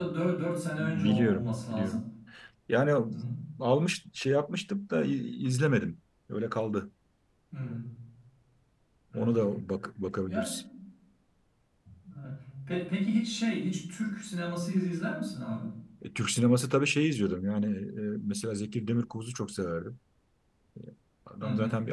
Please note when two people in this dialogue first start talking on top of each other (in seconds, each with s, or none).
0.8 s